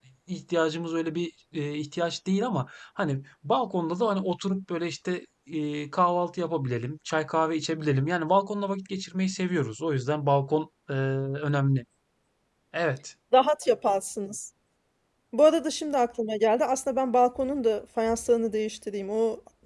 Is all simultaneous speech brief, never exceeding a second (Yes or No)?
Yes